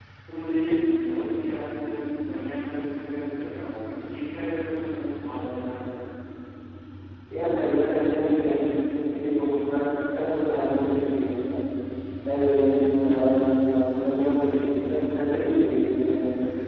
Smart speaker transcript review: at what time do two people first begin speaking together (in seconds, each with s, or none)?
none